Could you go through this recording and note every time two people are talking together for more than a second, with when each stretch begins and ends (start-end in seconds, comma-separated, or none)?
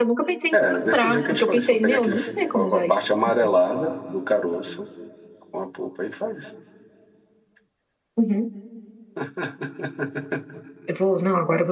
0.5-2.2